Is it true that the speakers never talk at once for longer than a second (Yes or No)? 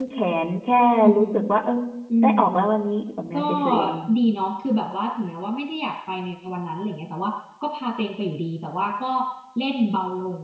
Yes